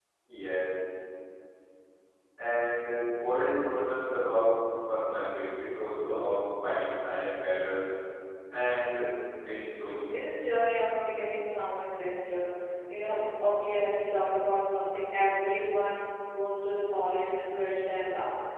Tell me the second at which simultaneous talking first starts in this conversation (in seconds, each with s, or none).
none